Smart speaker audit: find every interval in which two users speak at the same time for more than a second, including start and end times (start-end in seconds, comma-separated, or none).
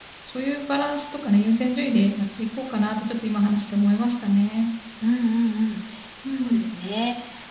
none